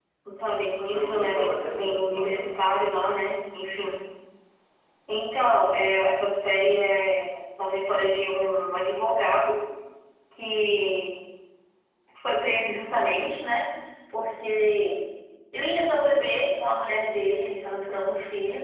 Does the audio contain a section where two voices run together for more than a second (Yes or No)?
Yes